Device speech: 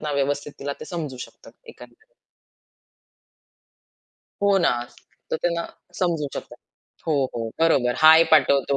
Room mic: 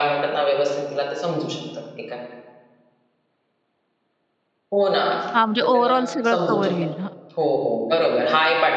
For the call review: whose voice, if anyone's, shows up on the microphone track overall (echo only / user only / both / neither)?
both